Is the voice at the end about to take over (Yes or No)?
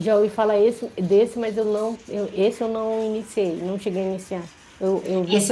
Yes